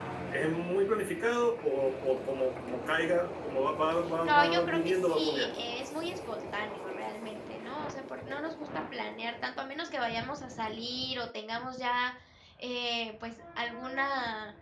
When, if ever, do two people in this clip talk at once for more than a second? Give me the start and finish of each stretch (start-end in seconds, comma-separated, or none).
4.2-5.5